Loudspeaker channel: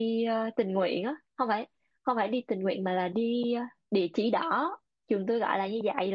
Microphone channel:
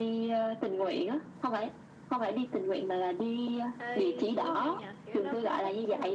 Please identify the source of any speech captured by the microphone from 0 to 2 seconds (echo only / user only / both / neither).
echo only